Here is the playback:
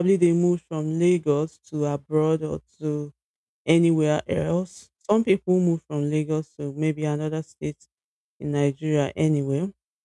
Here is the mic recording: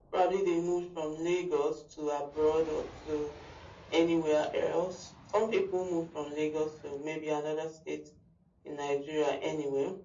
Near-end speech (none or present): none